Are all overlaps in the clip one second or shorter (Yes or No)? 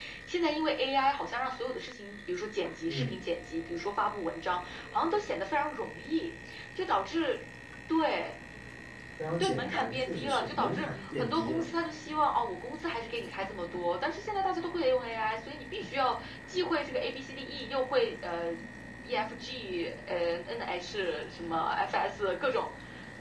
No